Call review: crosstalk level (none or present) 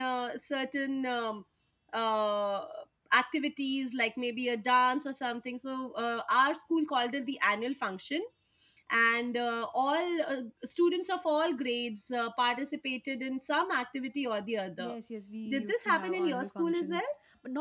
present